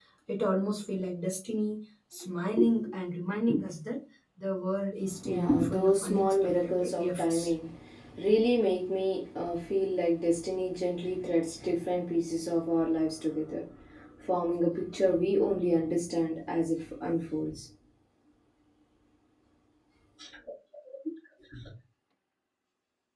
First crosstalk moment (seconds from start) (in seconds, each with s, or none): 5.2 s